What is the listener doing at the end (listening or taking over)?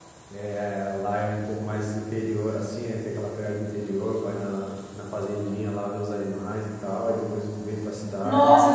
taking over